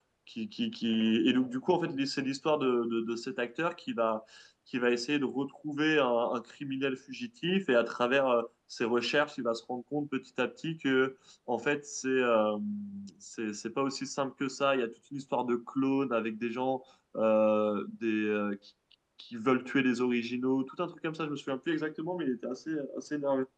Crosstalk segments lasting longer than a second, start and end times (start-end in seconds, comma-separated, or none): none